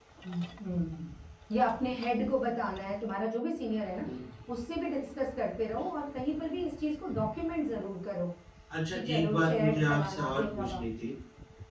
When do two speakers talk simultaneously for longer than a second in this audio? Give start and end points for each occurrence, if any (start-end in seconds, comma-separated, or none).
8.9-10.8